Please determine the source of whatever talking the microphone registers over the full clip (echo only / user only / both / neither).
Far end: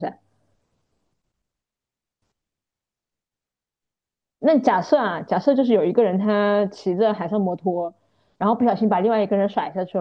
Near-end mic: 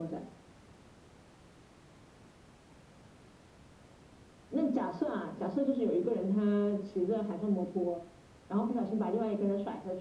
echo only